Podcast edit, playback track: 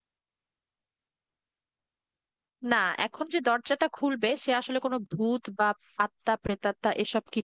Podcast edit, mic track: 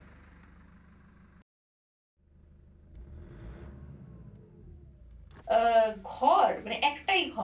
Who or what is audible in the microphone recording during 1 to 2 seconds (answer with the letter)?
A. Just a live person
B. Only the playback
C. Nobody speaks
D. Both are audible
C